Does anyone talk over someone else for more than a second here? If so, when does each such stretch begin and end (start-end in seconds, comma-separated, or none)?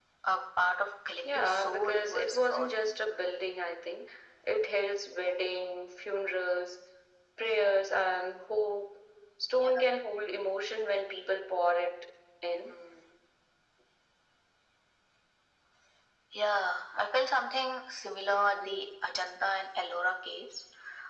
1.2-2.7